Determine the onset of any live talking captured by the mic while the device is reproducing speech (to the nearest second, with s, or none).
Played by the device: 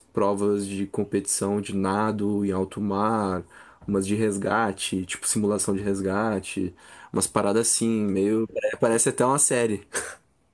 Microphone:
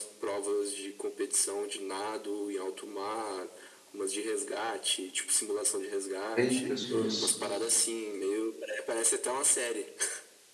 6 s